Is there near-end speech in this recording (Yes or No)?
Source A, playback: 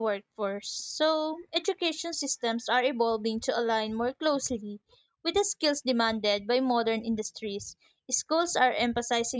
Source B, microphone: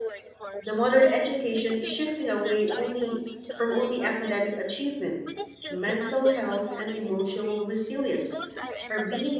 Yes